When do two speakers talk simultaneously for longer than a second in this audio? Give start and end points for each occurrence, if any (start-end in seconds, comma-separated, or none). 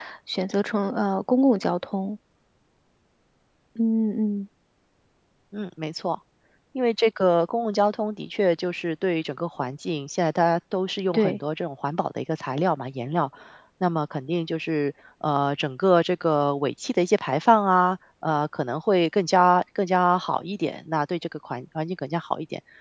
none